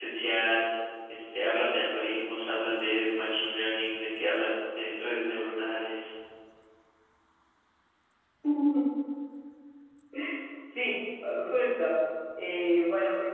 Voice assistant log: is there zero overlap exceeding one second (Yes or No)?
Yes